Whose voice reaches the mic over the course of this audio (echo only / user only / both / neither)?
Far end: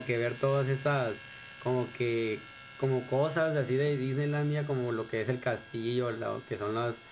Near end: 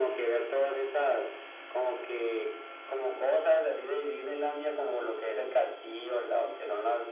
echo only